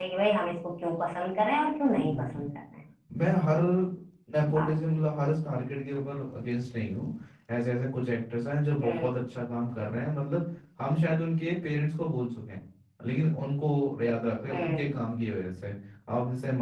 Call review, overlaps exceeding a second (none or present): none